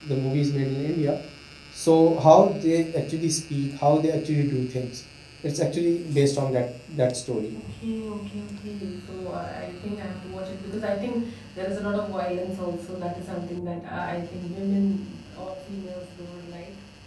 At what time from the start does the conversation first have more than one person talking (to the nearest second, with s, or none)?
none